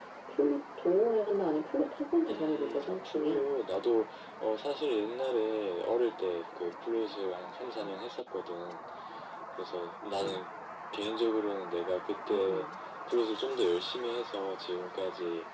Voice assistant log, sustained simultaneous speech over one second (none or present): present